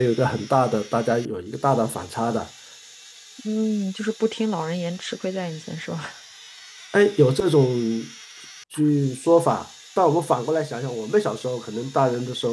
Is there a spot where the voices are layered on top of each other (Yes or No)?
No